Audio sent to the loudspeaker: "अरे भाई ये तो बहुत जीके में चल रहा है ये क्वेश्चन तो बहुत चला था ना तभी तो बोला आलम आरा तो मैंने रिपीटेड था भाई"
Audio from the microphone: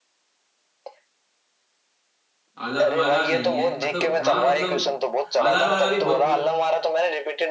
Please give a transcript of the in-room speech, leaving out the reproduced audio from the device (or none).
आला मारा नहीं है मतलब हाँ मतलब आला मारा भी बहुत पूरा